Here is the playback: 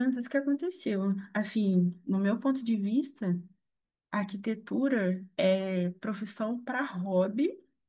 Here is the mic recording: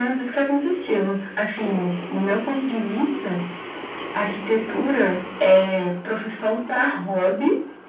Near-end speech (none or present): none